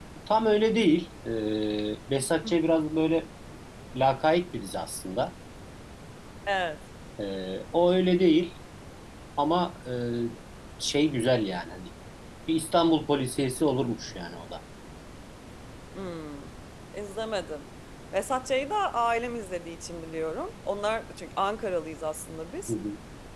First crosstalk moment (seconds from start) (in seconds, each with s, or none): none